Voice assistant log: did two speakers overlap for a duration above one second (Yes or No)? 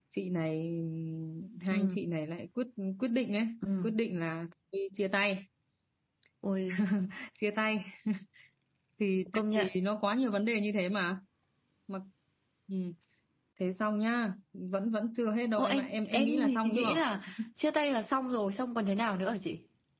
Yes